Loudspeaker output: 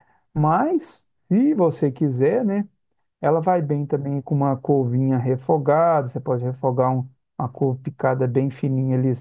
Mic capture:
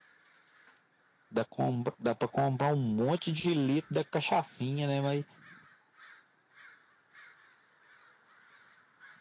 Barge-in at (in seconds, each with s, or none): 1.3 s